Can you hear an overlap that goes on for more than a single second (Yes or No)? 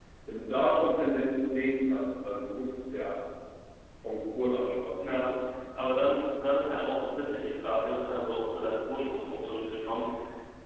No